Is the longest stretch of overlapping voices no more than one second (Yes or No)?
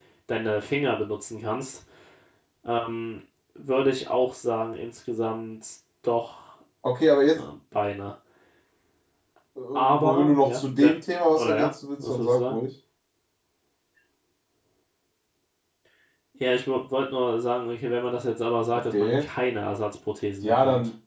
No